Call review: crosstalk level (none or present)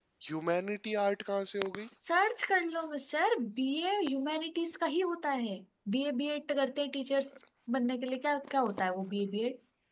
none